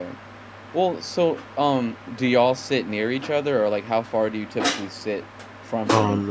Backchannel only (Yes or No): No